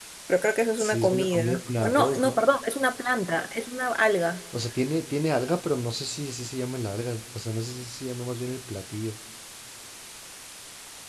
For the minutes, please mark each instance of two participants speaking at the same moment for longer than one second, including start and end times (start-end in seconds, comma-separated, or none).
0.8-2.4